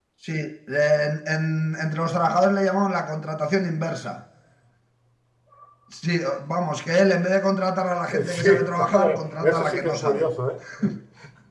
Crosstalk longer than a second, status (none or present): present